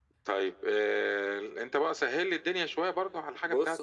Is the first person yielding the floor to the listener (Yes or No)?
Yes